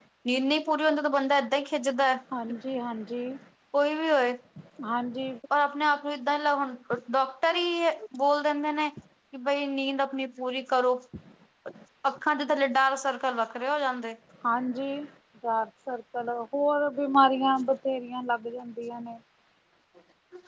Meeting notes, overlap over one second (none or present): none